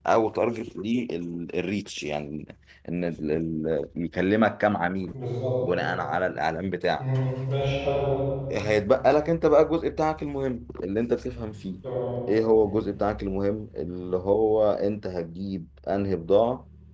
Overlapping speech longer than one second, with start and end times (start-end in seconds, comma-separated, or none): none